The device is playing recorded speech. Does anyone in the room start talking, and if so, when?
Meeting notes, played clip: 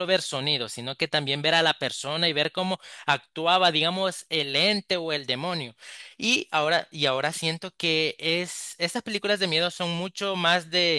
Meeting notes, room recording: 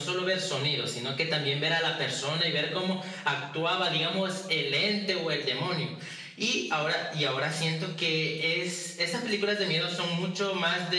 none

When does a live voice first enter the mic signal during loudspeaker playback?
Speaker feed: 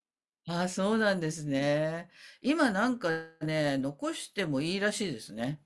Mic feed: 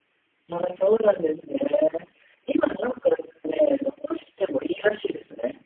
none

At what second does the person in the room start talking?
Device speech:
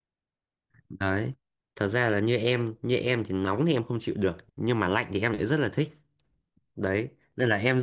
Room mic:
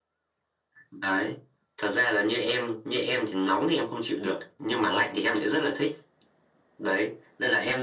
none

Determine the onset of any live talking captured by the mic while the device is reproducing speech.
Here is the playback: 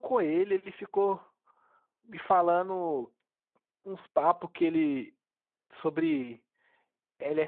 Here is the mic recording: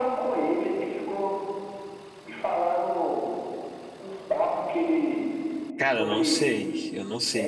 5.8 s

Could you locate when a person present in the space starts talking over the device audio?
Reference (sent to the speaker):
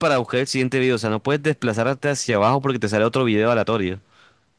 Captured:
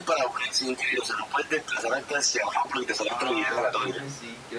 3.1 s

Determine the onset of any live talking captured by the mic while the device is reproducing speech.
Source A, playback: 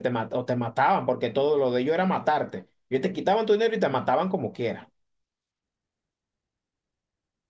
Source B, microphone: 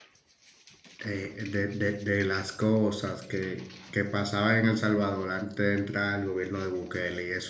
1.0 s

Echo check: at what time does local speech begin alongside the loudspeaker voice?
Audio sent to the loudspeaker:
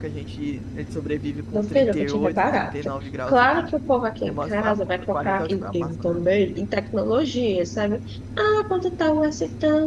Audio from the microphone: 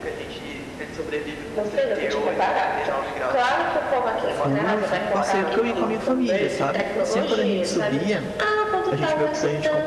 4.3 s

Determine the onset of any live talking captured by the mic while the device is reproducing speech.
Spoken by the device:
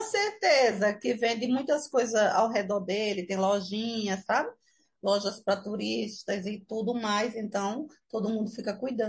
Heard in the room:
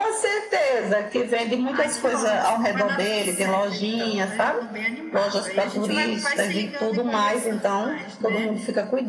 1.7 s

